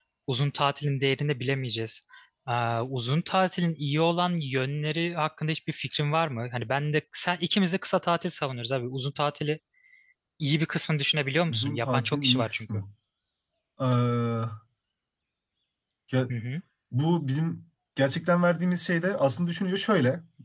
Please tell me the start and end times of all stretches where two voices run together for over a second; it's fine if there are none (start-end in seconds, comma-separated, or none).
11.5-12.8